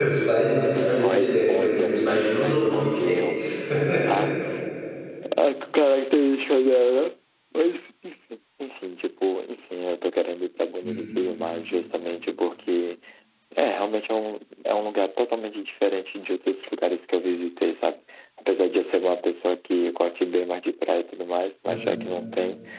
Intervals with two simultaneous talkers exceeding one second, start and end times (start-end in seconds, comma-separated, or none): 0.7-3.0